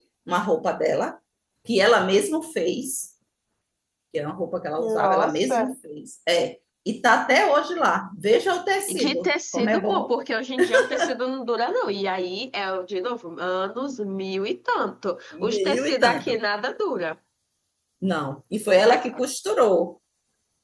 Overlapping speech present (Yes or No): Yes